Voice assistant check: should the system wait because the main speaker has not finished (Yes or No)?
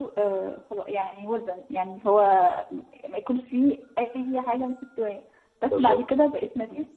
Yes